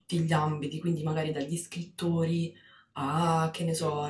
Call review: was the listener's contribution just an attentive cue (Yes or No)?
Yes